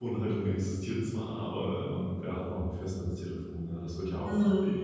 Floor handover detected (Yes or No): Yes